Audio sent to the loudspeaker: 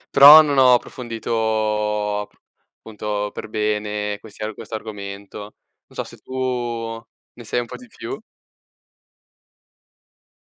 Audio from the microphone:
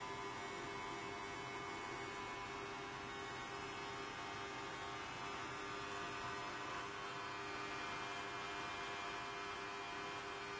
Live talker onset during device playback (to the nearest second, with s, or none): none